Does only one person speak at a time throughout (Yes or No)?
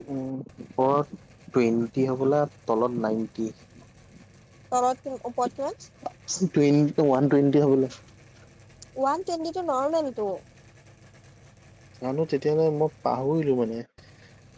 Yes